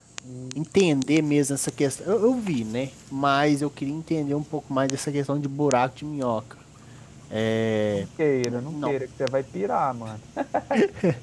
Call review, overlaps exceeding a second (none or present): none